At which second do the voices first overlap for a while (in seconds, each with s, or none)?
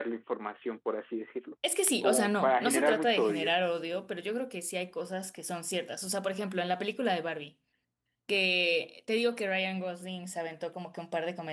2.0 s